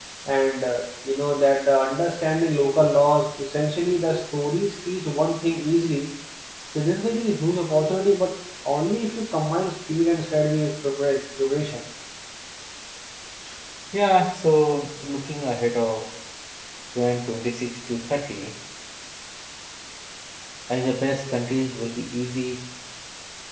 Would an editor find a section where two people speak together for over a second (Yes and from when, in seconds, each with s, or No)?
No